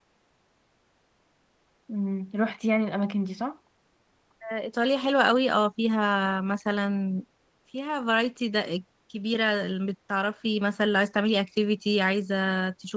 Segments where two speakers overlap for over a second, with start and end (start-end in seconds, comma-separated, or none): none